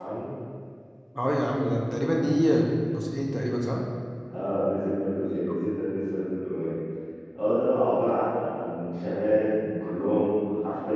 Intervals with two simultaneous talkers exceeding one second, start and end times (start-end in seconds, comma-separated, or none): none